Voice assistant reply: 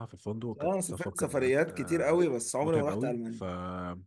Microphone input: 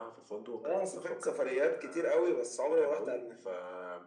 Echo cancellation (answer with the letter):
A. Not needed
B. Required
B